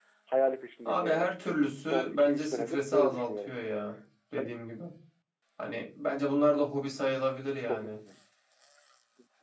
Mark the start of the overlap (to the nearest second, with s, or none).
1 s